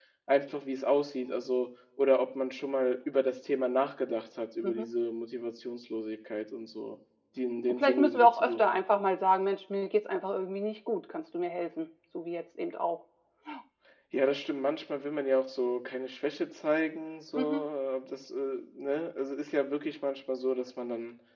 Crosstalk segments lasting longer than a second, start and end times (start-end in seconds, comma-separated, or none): 7.6-8.8